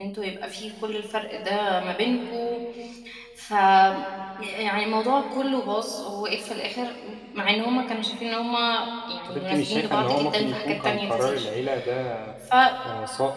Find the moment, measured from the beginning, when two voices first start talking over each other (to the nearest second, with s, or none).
9 s